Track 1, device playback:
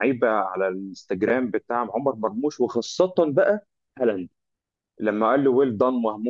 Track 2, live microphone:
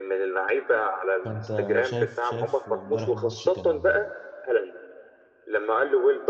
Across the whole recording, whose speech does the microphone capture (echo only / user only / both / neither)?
both